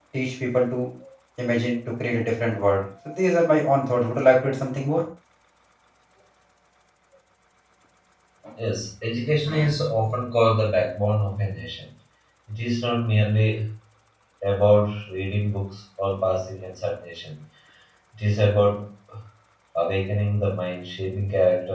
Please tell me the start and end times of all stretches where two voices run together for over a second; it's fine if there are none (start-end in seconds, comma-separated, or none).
none